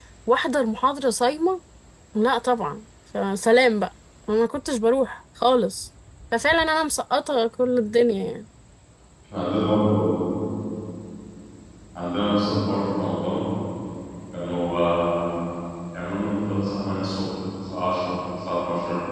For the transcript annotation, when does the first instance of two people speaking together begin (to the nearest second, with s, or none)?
none